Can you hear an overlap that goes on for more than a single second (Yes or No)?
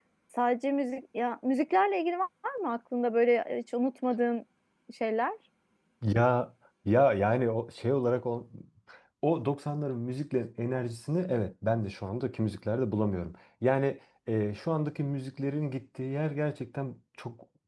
No